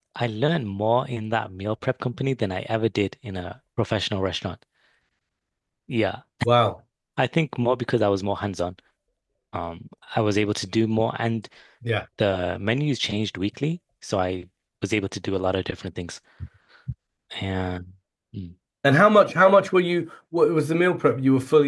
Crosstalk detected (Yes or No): No